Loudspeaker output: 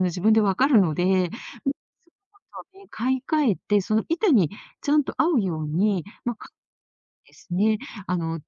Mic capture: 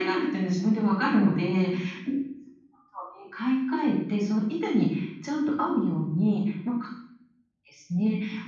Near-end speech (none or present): none